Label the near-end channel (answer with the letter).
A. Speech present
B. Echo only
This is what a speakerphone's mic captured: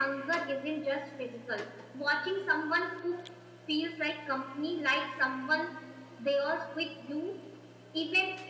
B